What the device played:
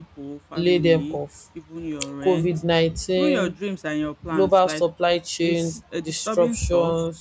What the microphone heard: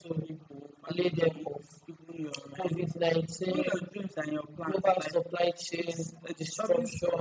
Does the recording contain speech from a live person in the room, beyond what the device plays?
No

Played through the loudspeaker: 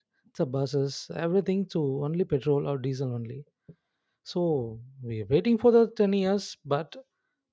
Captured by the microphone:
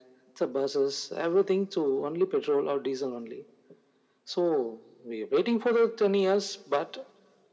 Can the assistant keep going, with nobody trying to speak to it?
Yes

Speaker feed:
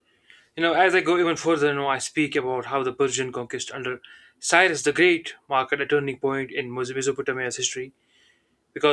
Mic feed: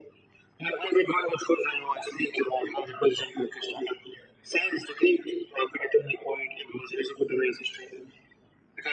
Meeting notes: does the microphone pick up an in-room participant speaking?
No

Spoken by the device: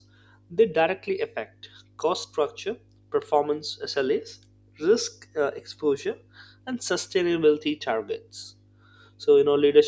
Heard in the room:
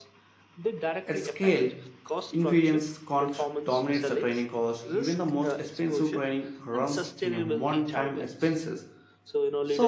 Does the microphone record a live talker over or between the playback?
Yes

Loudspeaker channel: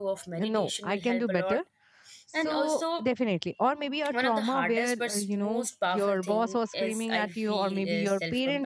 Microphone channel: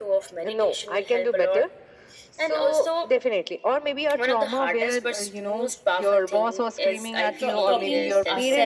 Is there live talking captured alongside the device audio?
Yes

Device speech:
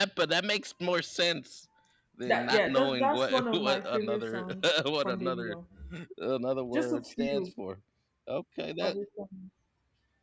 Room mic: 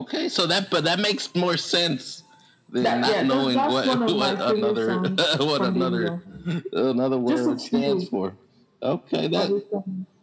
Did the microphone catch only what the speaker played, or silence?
Yes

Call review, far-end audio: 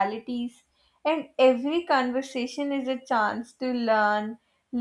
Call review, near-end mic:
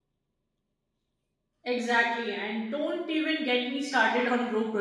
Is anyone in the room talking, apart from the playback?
Yes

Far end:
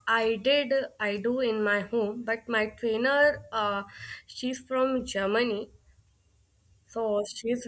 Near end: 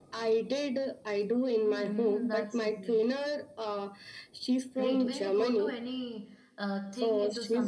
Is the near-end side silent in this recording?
No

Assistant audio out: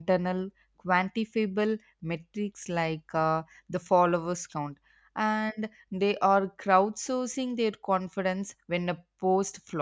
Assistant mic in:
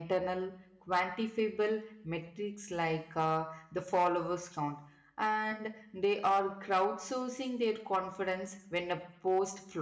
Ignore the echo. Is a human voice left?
No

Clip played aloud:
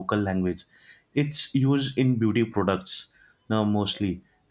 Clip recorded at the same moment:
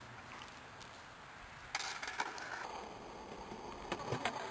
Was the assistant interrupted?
No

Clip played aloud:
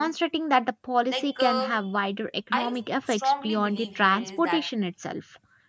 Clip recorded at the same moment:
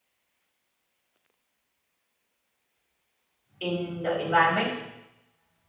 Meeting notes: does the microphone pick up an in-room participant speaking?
Yes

